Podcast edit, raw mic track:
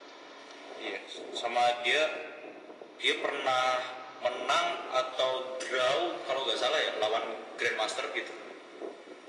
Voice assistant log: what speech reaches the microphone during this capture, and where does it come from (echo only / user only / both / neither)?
echo only